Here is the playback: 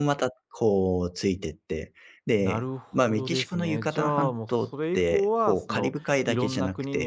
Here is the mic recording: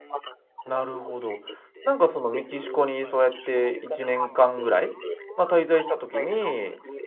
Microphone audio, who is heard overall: both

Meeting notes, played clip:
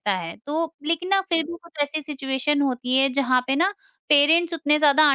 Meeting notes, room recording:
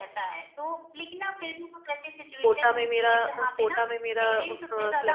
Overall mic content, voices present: both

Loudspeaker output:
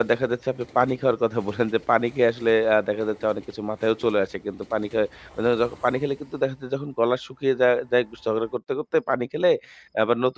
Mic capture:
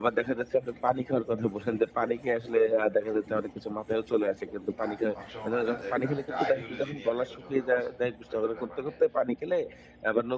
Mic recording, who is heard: both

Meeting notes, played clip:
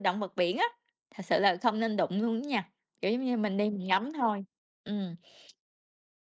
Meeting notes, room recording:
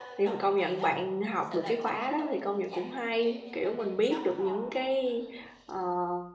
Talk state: both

